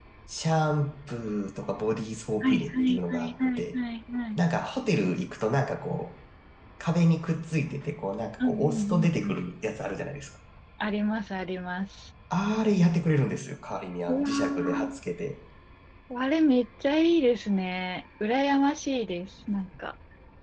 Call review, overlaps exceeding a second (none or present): present